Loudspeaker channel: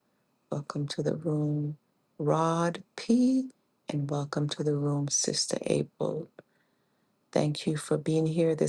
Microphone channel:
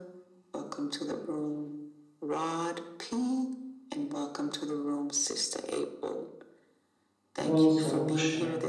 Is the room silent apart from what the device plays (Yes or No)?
No